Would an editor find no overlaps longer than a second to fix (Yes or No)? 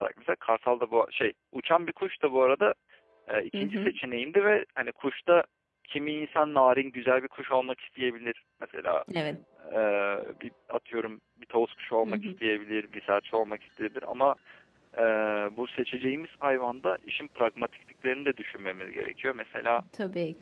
Yes